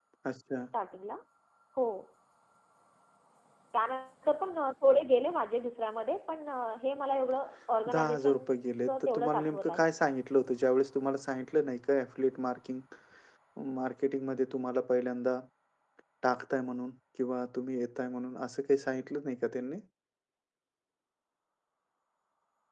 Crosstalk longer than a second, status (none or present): present